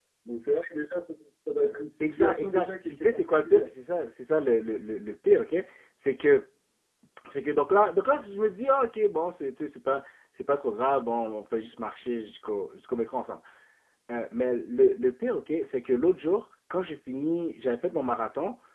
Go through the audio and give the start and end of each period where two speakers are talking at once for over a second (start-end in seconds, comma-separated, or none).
2.0-3.6